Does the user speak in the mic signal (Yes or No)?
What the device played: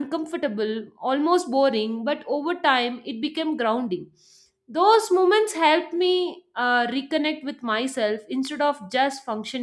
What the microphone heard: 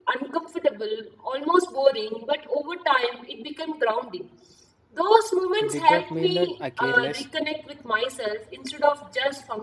Yes